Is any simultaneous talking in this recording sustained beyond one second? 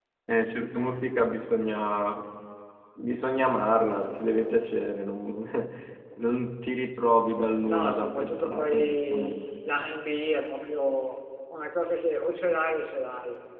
Yes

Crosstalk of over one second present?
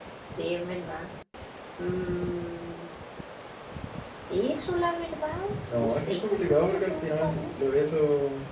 Yes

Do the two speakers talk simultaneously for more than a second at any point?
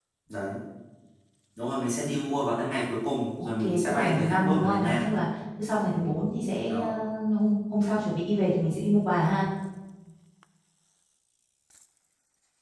Yes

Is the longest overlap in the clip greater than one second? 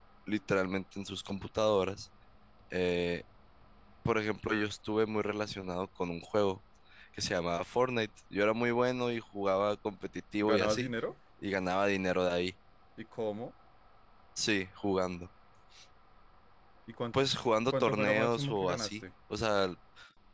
Yes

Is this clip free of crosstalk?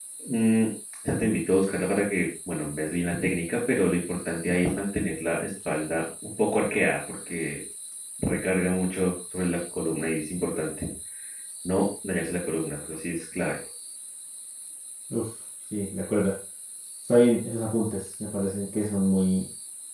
Yes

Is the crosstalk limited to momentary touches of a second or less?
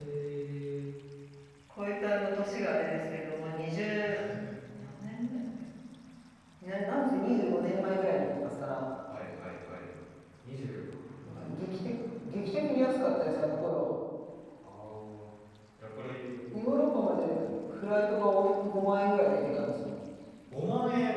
Yes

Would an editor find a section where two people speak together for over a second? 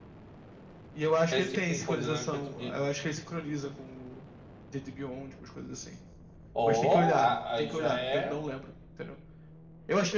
Yes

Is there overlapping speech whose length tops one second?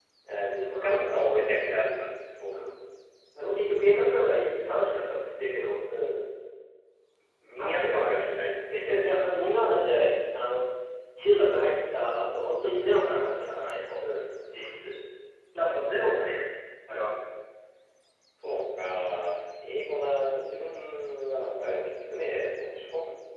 Yes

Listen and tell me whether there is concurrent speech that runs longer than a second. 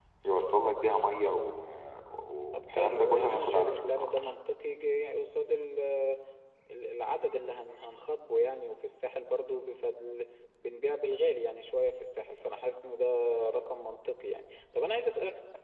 Yes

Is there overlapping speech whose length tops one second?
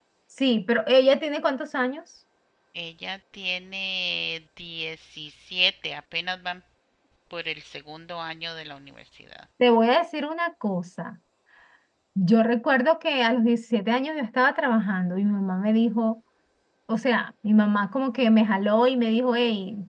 No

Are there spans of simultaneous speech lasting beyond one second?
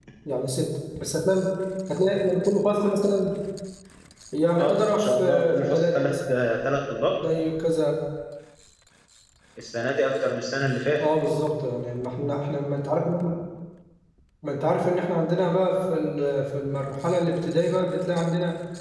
Yes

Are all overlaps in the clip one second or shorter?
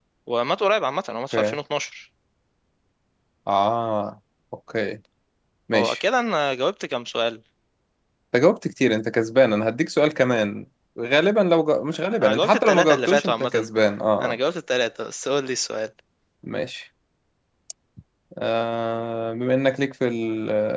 No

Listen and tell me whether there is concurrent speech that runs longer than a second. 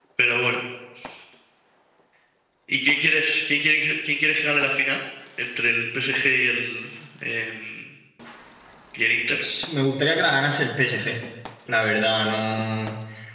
No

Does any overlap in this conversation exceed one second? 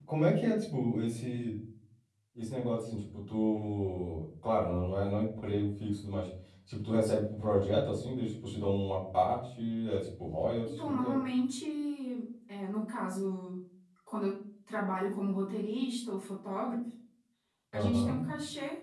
No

